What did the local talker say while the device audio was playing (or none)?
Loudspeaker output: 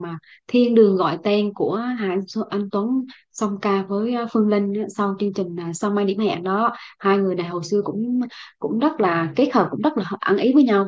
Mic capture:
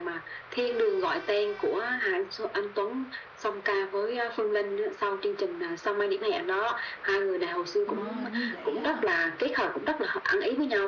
Ờ, hình như vậy á.